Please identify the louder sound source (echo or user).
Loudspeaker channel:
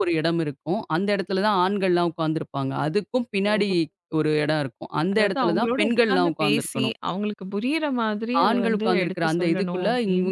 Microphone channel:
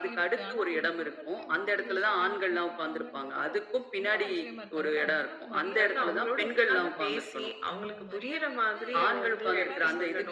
echo